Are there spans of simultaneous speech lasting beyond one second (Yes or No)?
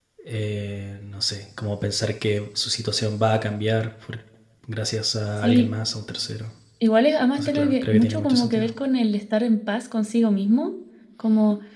Yes